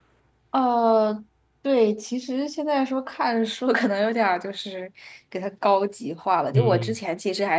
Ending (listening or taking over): listening